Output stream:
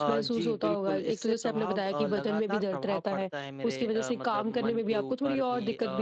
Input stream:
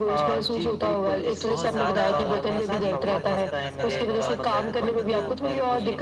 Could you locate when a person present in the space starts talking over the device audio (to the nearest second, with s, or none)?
1 s